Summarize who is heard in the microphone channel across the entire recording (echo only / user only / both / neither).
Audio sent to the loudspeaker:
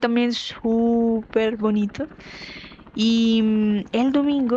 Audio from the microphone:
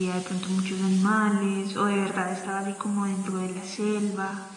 user only